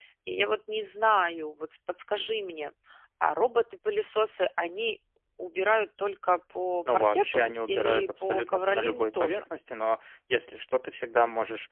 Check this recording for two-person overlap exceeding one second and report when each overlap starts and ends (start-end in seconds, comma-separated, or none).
6.9-9.4